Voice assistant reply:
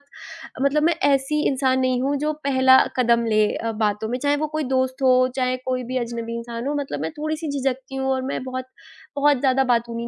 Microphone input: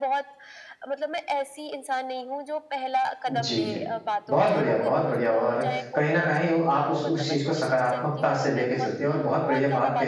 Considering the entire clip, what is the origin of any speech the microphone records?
both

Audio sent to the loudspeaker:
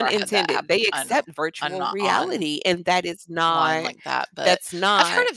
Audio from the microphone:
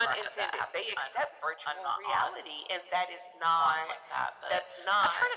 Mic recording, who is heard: echo only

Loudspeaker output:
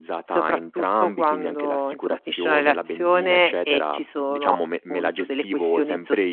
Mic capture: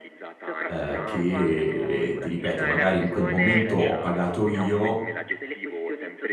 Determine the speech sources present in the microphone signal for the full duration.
both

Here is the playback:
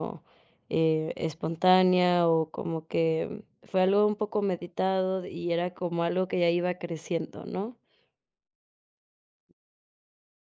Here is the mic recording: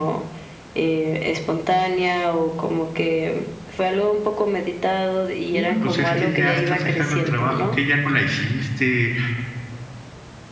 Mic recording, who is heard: both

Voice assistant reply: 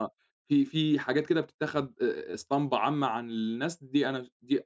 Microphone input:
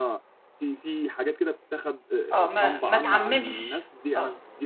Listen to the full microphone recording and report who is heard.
both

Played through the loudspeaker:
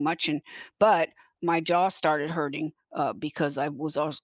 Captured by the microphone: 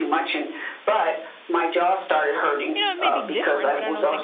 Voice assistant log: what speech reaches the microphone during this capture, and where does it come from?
both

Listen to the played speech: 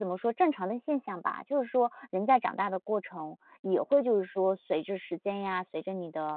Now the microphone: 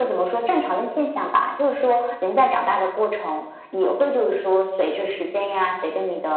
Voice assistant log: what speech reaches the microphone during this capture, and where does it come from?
echo only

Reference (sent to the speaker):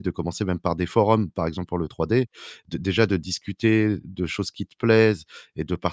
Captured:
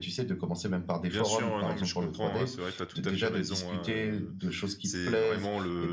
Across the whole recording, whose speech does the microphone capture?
both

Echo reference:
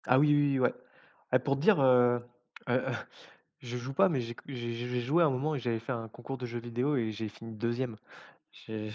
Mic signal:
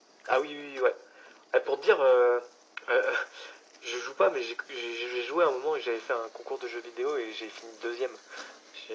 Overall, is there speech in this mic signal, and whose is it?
echo only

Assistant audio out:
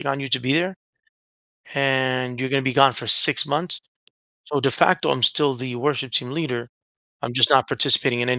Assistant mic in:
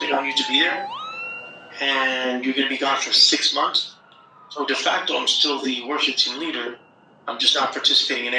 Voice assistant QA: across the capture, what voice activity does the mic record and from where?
echo only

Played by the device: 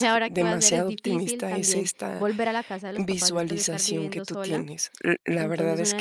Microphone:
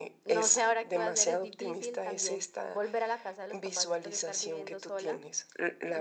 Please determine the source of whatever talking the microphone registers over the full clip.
echo only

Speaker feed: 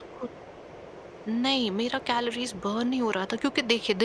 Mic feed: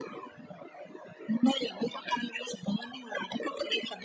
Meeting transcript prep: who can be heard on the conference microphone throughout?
echo only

